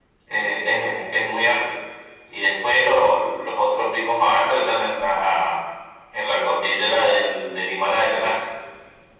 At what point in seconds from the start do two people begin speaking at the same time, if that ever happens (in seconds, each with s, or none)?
none